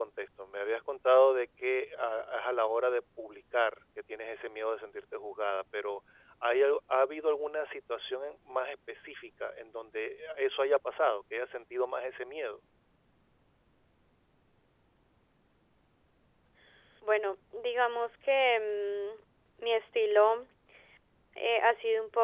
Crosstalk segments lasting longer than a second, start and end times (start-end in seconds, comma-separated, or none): none